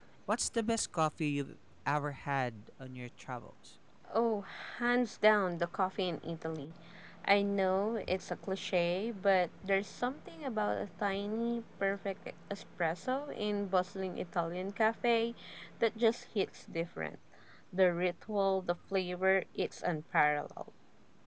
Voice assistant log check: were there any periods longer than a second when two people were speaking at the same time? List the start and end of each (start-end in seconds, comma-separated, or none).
none